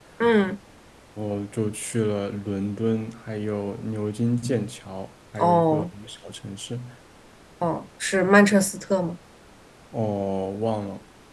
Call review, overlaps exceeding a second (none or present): none